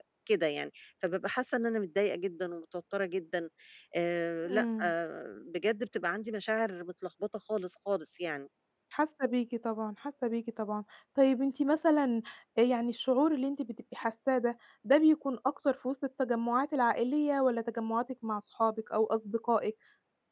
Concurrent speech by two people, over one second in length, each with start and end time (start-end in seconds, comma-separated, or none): none